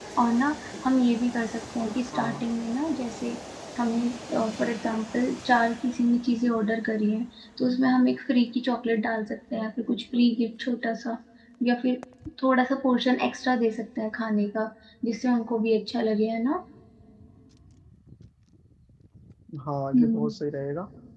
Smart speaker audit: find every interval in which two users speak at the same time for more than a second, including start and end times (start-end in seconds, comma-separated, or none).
none